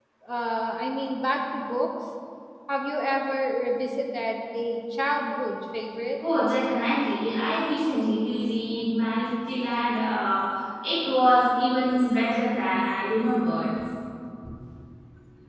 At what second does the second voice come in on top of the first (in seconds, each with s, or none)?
none